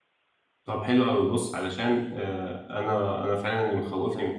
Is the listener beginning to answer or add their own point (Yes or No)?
No